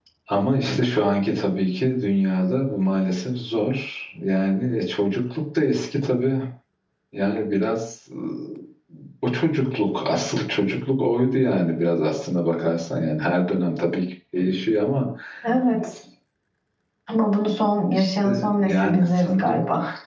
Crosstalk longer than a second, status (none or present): present